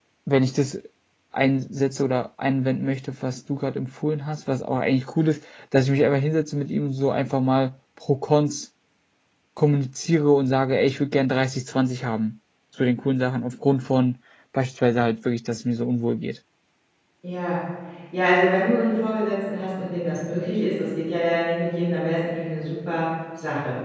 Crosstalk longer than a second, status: none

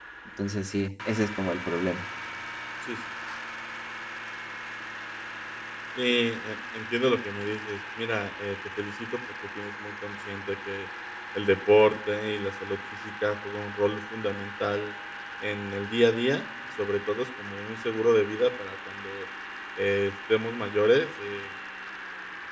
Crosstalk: none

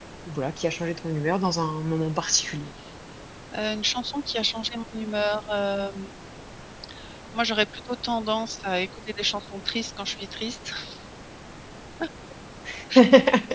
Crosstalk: none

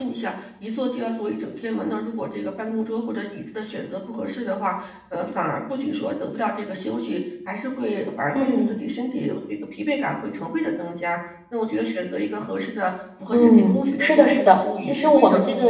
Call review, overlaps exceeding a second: present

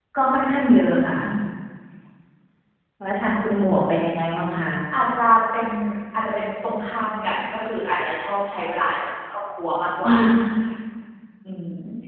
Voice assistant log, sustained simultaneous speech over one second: none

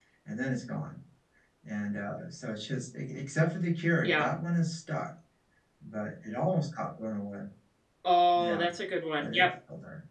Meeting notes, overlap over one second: none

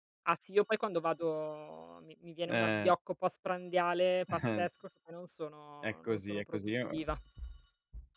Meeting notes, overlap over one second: present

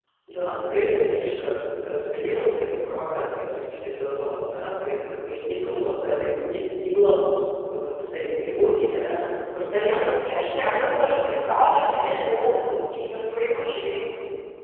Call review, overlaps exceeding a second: present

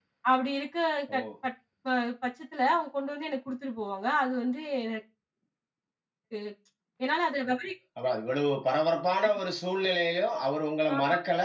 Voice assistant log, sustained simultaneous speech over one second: none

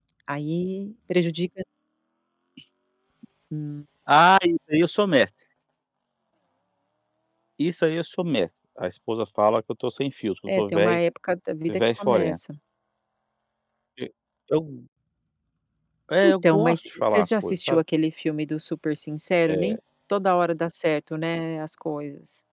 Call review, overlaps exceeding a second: present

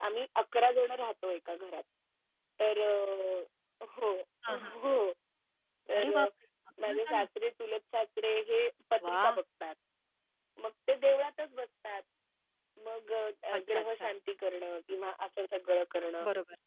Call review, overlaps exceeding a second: none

